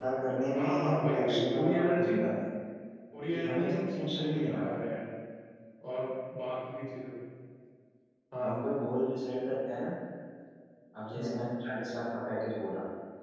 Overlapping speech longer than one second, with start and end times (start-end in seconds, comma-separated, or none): 0.6-2.1, 3.3-4.8